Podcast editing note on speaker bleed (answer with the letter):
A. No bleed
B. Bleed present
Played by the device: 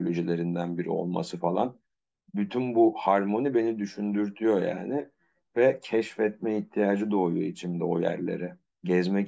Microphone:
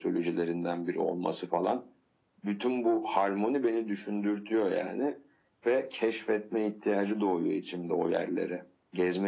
B